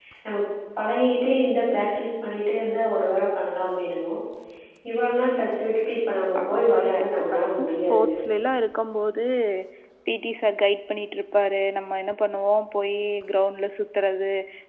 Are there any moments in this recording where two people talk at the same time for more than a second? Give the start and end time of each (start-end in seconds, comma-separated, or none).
6.6-8.1